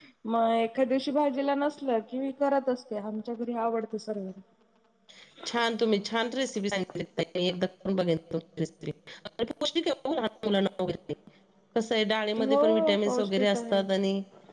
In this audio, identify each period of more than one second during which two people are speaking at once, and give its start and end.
12.5-13.8

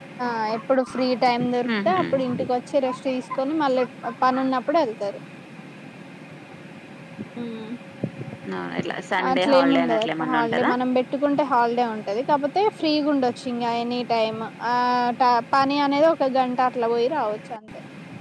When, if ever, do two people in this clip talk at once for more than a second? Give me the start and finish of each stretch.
9.3-10.7

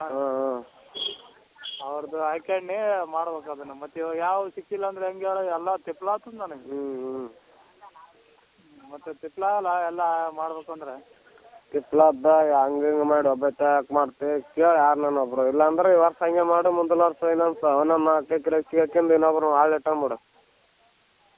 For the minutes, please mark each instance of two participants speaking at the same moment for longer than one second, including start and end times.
none

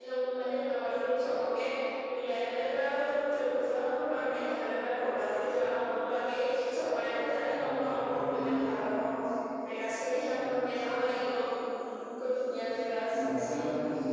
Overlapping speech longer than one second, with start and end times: 7.5-8.9

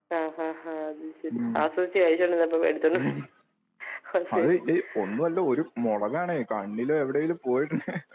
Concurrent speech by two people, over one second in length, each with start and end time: none

